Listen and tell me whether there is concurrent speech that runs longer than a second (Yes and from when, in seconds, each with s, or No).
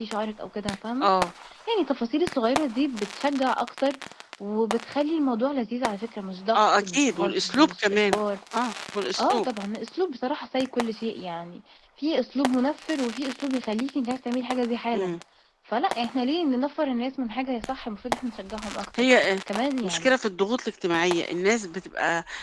Yes, from 6.5 s